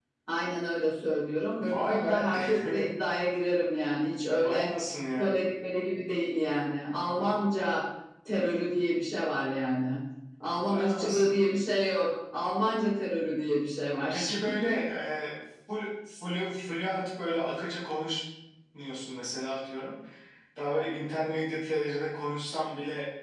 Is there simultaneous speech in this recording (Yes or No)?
Yes